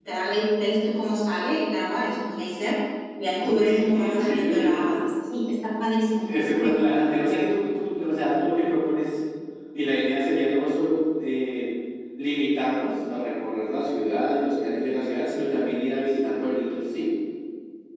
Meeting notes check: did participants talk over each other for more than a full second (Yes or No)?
Yes